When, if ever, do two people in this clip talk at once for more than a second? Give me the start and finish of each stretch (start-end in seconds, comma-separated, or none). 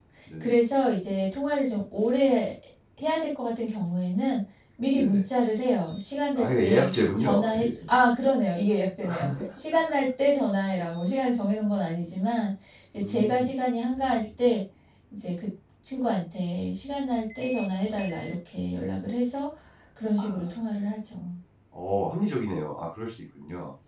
6.4-7.7